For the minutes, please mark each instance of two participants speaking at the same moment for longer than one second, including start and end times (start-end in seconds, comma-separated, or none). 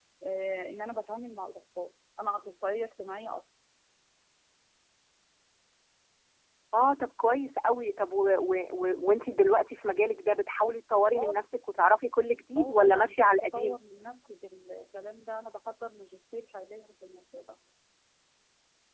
12.6-13.8